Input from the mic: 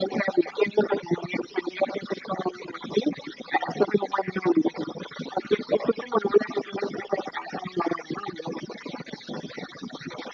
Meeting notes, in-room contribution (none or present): none